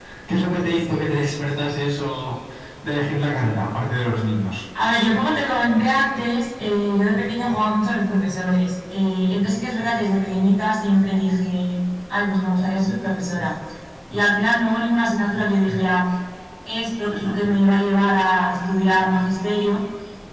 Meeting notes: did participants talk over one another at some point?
No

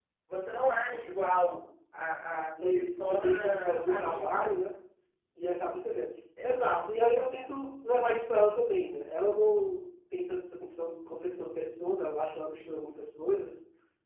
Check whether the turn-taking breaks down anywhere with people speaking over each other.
Yes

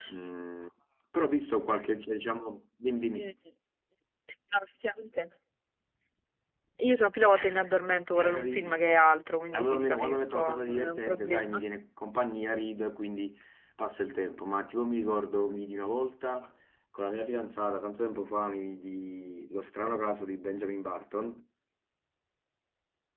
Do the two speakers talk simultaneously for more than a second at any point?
Yes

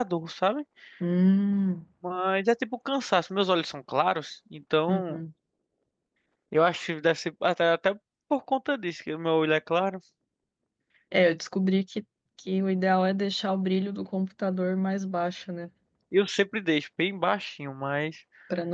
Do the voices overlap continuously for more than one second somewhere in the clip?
No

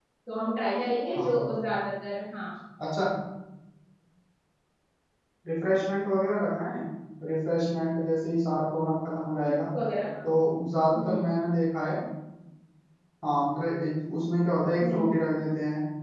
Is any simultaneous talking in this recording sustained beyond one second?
No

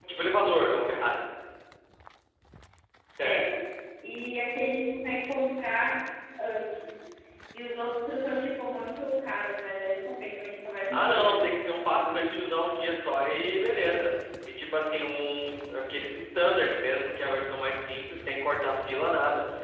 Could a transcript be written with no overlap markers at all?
No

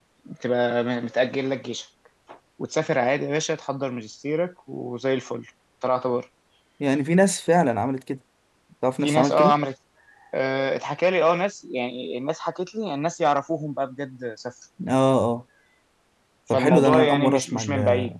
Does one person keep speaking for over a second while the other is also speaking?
Yes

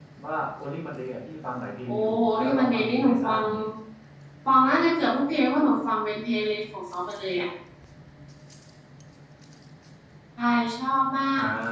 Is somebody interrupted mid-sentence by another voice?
Yes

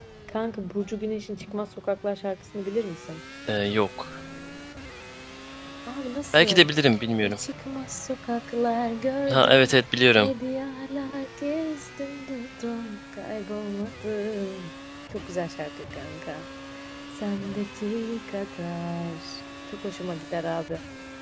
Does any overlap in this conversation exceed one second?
No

